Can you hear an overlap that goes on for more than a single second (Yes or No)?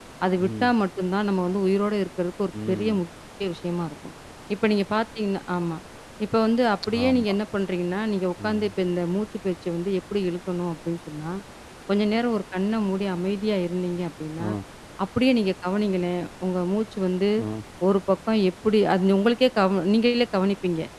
No